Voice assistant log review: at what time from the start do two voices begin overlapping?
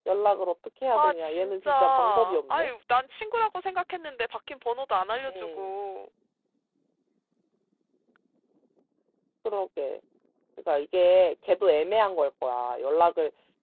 1 s

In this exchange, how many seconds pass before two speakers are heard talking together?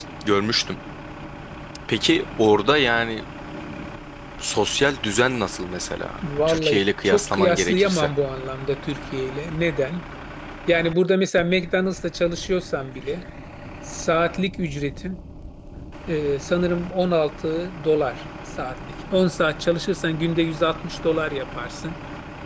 6 s

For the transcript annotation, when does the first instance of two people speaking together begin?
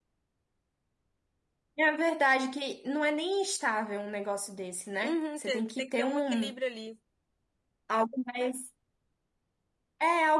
5 s

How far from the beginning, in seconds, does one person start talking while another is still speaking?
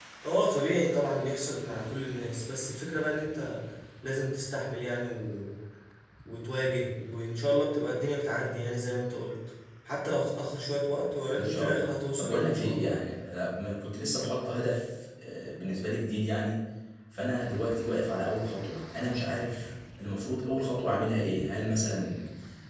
11 s

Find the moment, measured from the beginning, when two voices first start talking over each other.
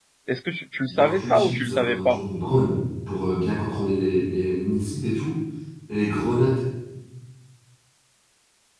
1 s

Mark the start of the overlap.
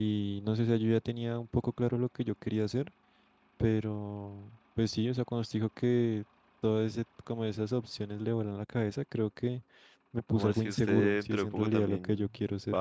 10 s

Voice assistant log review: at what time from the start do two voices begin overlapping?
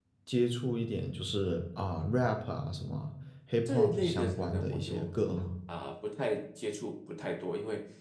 4 s

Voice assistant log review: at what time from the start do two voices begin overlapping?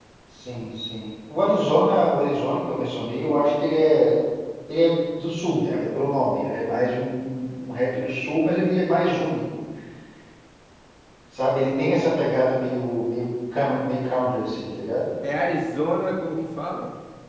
none

